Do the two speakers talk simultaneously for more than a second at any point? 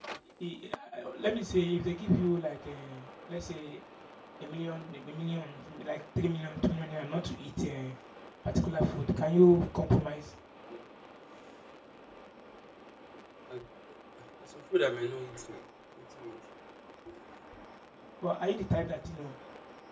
No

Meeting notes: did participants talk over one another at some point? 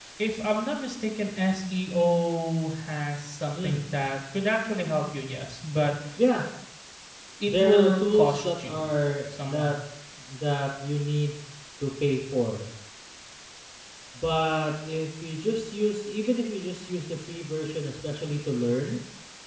Yes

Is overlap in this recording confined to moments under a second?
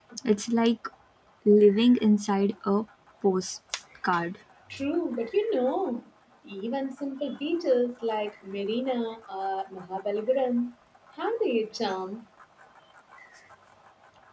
Yes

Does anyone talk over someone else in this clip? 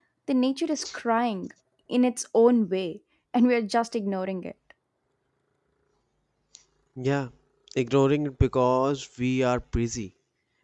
No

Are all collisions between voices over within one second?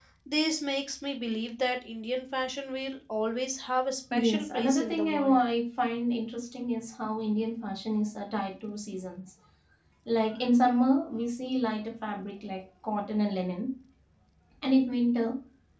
No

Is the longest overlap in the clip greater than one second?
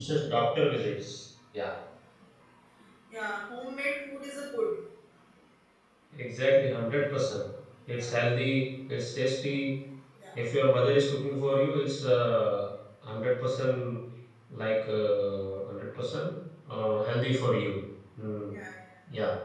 No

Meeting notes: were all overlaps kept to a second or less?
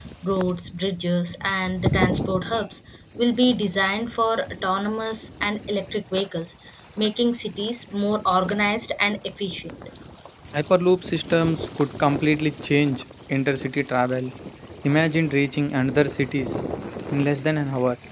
Yes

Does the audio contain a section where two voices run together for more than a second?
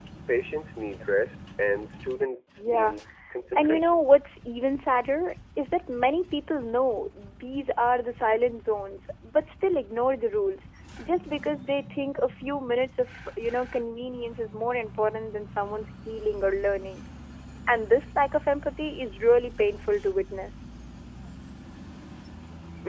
No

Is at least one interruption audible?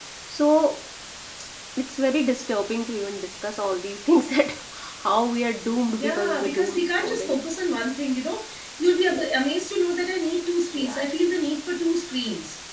Yes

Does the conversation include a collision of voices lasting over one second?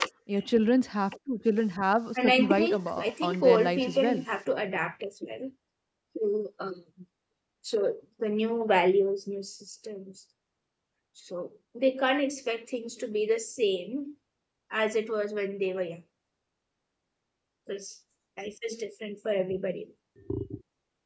Yes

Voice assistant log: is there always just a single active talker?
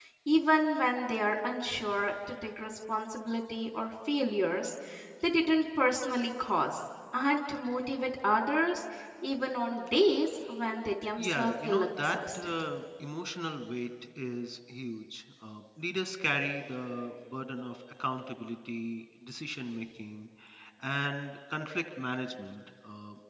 No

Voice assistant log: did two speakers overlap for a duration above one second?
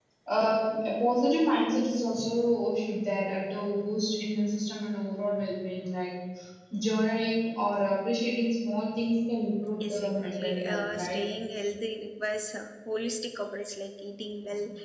Yes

